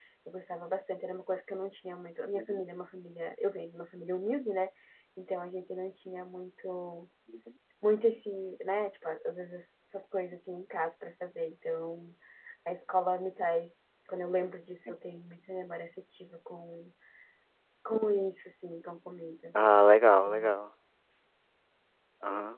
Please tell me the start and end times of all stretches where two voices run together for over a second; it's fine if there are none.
none

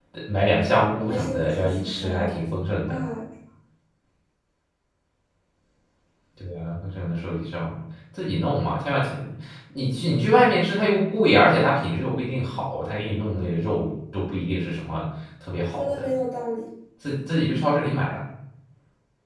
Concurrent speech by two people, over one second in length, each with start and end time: 1.1-2.3

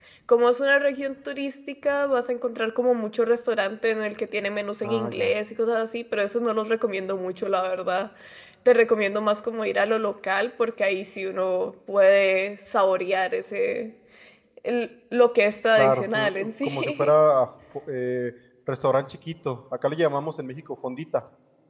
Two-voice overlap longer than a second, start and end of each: 15.8-17.1

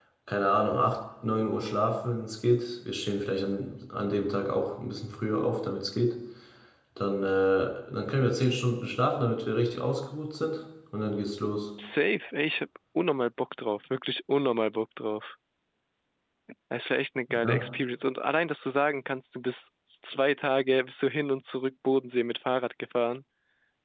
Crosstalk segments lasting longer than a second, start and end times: none

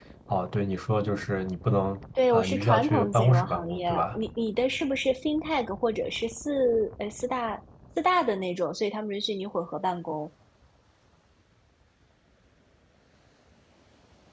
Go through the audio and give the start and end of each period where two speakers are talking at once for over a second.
2.3-4.2

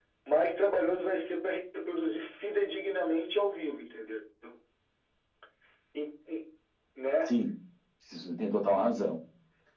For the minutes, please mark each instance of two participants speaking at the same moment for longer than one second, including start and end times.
none

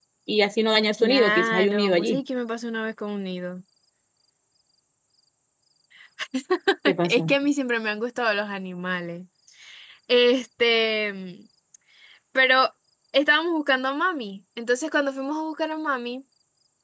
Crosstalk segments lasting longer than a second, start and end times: 1.0-2.2

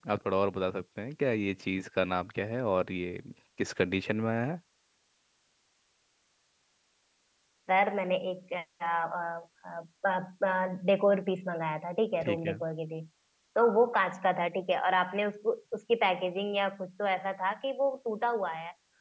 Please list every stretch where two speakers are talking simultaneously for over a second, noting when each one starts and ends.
none

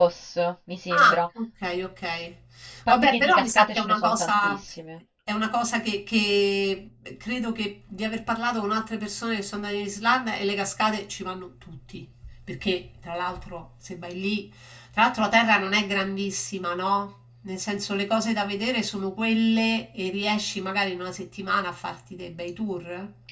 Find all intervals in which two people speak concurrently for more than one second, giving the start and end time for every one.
2.9-4.6

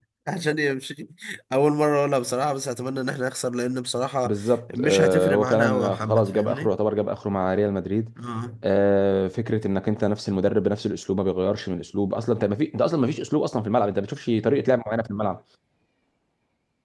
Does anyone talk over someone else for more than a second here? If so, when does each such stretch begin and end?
4.8-6.7

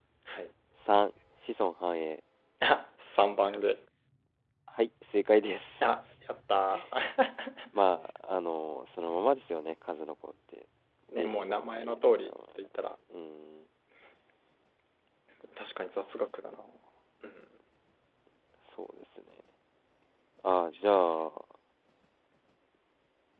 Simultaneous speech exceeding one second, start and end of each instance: 11.1-12.3

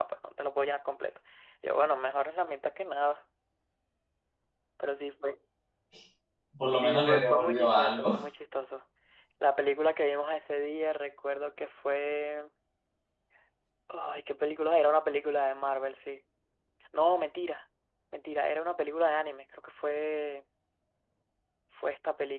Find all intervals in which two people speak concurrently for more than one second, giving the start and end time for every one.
6.8-8.2

